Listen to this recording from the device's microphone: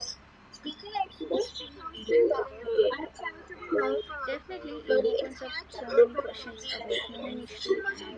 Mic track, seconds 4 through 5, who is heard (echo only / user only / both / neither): both